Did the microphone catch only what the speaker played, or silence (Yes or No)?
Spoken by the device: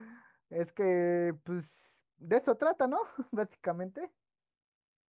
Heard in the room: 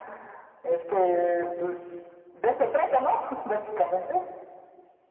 Yes